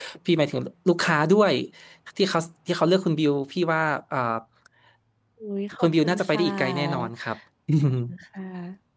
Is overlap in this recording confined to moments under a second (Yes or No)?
No